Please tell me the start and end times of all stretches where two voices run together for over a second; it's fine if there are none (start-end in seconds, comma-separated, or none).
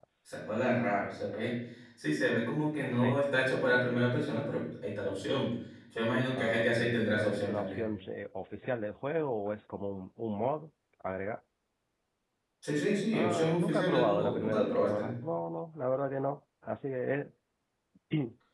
6.4-7.9, 13.1-15.1